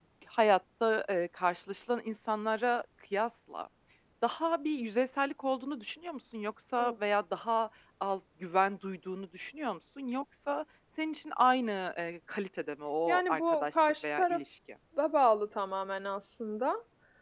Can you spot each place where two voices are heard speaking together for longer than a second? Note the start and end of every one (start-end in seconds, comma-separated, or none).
13.1-14.4